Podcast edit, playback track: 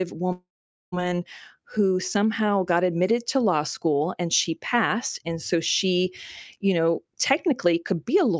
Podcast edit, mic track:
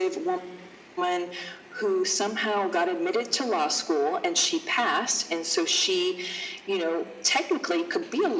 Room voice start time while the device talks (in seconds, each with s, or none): none